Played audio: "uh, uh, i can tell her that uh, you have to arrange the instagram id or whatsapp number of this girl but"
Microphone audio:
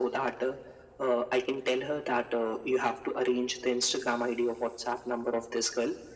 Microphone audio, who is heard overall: echo only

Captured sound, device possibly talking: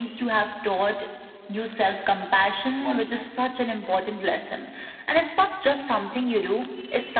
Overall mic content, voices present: both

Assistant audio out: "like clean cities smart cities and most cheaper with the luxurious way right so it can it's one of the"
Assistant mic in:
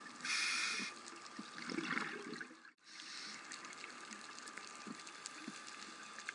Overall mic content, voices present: neither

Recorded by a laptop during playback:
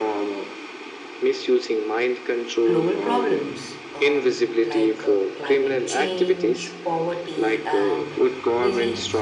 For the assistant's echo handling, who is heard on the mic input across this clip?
both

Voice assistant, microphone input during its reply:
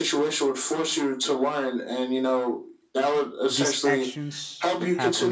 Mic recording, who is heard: both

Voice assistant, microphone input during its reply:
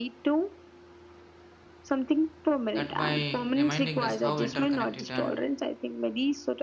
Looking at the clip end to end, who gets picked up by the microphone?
both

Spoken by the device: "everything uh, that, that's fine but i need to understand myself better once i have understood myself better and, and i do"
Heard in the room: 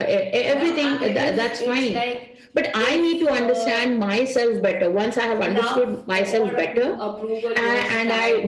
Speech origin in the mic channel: both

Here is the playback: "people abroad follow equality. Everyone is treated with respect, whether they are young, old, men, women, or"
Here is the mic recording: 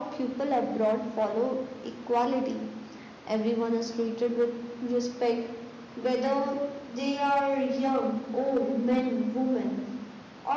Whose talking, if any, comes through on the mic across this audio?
echo only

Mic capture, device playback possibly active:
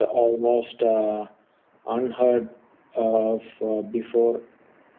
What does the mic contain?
echo only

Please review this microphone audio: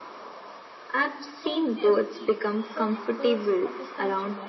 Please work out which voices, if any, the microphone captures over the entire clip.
both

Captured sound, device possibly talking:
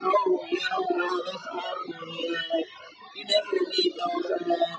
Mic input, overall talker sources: echo only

